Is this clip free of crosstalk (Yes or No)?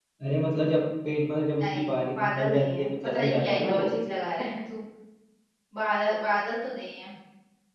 No